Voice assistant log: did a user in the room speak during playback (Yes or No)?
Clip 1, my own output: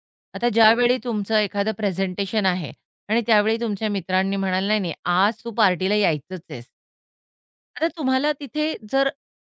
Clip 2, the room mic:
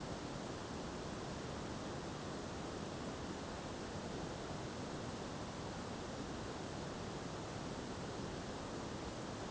No